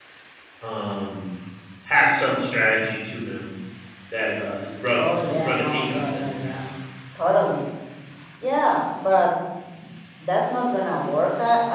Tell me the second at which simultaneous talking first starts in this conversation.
5.0 s

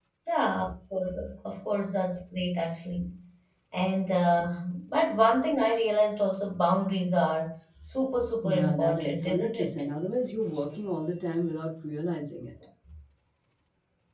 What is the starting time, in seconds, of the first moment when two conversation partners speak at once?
8.4 s

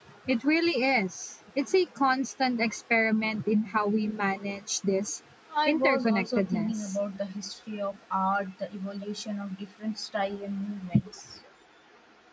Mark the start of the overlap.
5.7 s

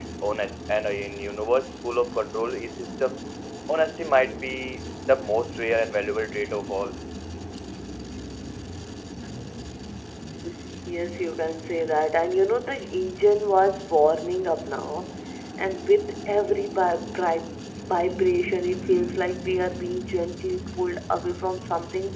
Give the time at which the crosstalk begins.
none

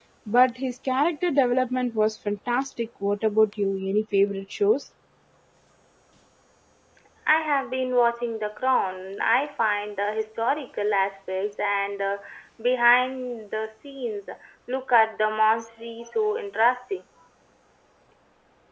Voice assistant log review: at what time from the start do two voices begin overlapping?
none

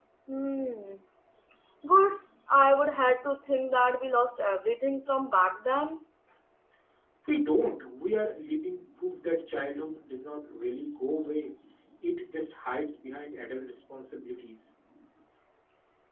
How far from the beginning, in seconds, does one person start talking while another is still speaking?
none

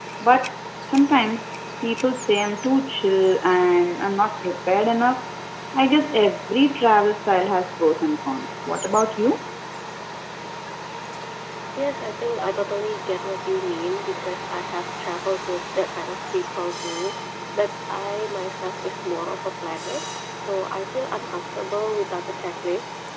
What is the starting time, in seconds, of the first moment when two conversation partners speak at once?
none

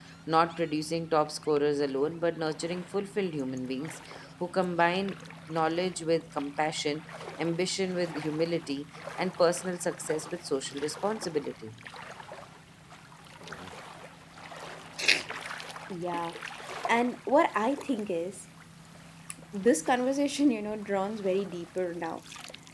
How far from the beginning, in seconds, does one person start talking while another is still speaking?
none

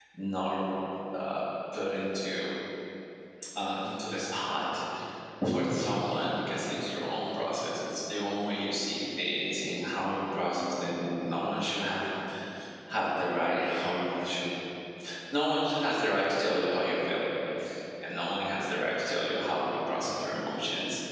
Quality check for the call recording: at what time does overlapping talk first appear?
none

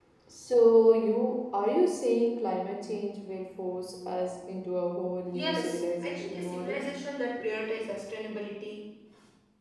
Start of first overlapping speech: 5.3 s

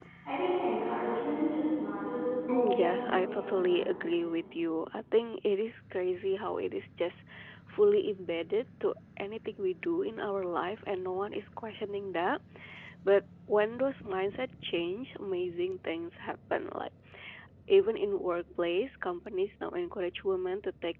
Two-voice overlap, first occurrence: 2.5 s

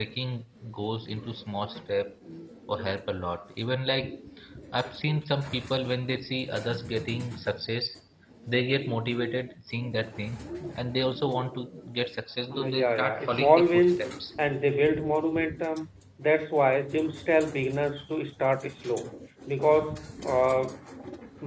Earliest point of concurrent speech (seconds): 12.5 s

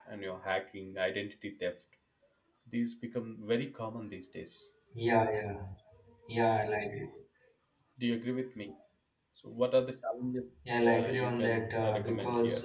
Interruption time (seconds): 10.7 s

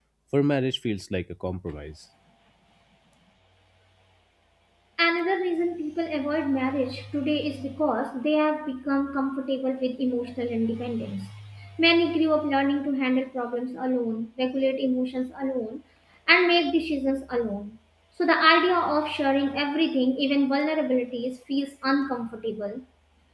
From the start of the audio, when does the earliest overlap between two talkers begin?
none

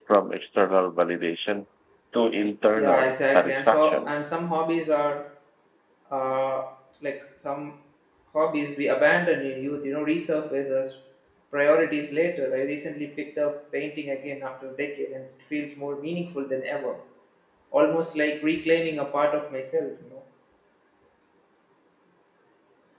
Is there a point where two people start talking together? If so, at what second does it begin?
2.8 s

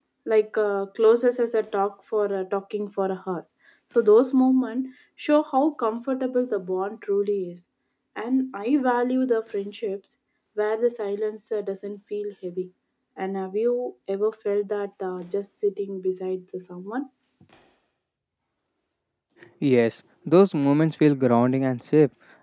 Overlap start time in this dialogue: none

